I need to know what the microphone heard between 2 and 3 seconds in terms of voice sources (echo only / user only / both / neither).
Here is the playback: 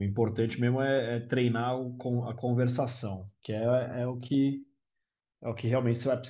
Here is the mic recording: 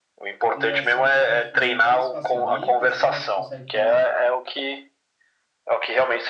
both